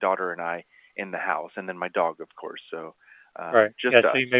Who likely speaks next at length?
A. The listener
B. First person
A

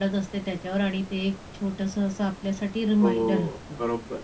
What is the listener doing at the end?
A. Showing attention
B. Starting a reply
B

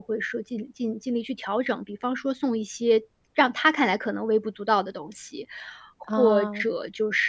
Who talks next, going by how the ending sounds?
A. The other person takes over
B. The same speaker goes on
B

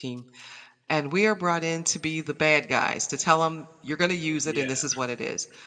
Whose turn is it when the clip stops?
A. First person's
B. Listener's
A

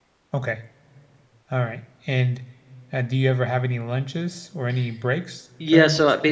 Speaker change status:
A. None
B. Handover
B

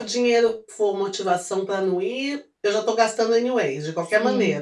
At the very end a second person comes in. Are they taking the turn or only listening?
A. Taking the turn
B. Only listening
A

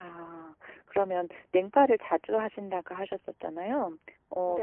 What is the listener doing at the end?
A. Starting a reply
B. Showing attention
B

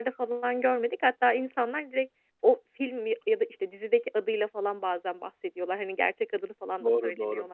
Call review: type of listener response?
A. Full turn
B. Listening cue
A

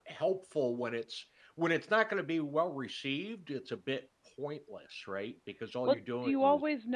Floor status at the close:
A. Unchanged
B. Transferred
B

